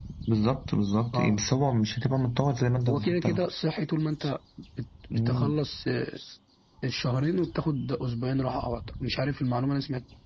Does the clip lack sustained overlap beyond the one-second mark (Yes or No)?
Yes